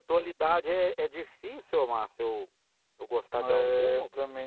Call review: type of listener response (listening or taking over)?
taking over